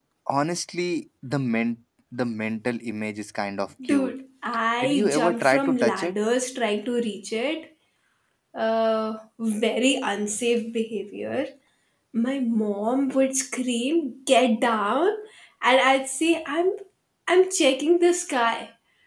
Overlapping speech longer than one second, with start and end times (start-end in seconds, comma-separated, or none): 4.8-6.1